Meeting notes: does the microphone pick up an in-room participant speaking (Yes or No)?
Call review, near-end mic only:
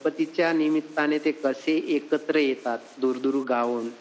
No